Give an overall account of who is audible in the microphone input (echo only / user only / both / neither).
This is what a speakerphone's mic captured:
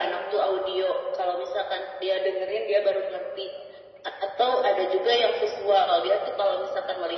echo only